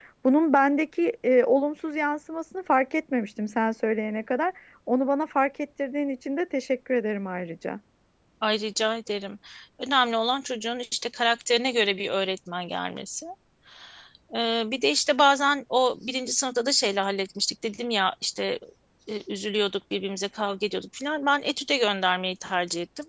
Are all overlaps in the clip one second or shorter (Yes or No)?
Yes